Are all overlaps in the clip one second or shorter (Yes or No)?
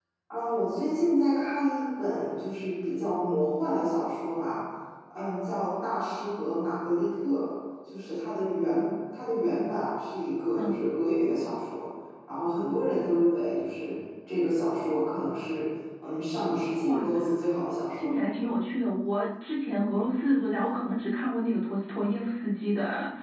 Yes